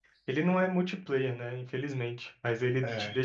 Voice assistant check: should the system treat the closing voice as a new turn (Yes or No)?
No